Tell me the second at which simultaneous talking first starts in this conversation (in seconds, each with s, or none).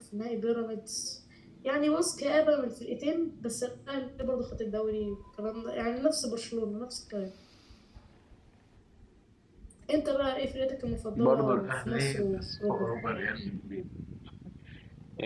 11.2 s